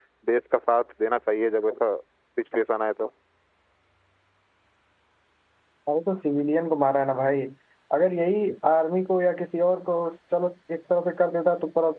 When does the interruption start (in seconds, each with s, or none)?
none